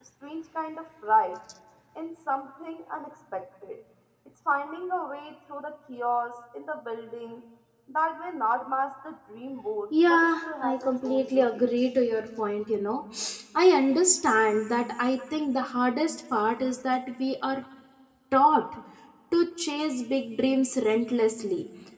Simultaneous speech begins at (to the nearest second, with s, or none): 10 s